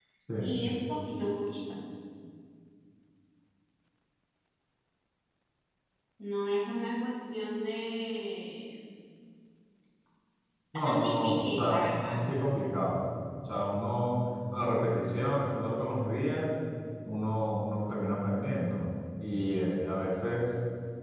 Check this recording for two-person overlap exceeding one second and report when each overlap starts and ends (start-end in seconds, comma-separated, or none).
10.8-12.2